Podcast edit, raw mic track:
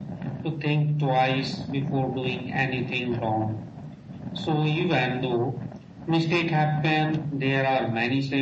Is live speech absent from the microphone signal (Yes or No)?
Yes